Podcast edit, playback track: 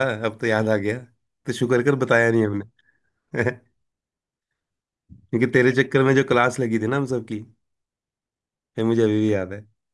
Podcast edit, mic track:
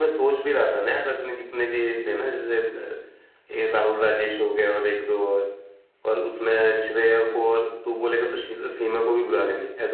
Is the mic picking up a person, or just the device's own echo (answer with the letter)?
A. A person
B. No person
A